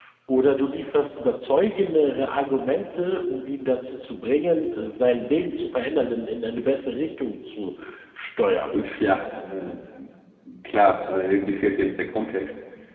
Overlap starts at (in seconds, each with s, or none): none